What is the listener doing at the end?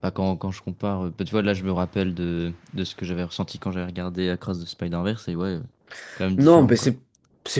taking over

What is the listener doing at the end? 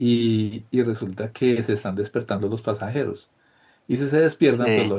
listening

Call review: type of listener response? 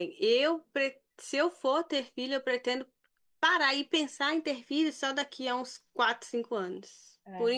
listening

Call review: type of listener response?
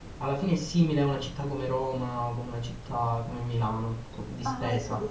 taking over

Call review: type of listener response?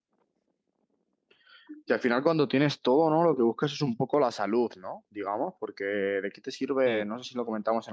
listening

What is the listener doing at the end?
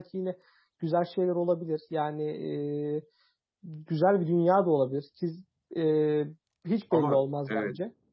taking over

